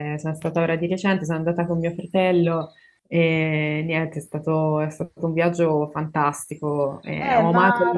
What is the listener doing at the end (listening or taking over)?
taking over